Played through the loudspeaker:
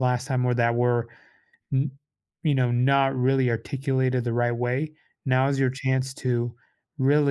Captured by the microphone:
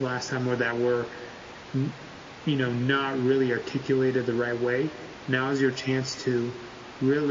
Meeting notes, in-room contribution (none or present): none